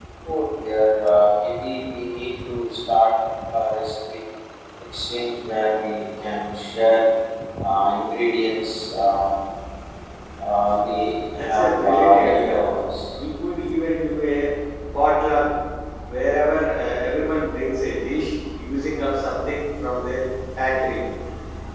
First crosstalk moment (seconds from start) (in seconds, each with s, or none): 11.3 s